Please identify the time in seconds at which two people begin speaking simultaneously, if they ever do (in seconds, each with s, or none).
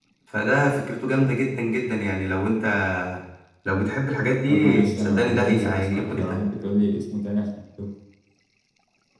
4.5 s